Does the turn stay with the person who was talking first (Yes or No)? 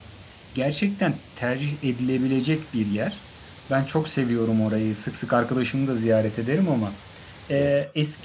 Yes